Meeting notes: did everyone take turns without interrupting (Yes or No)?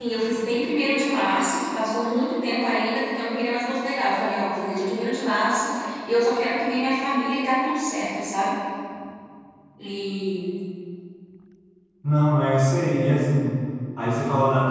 Yes